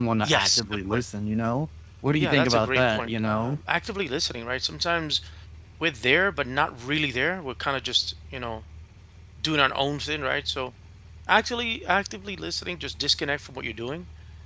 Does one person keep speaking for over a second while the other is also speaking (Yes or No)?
Yes